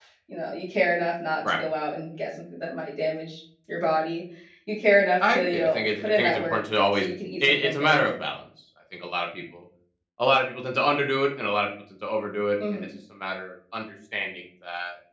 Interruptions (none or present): present